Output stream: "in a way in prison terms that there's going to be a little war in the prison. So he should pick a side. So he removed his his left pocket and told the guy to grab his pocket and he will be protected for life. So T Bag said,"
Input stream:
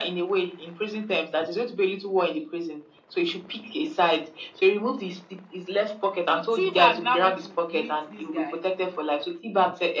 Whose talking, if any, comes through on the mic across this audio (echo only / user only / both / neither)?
both